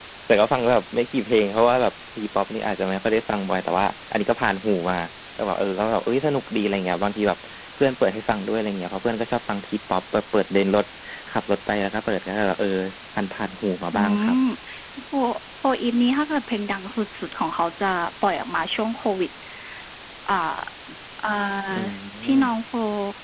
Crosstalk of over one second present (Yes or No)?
No